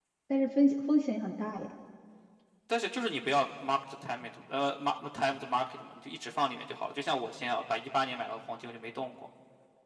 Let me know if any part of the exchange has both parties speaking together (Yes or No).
No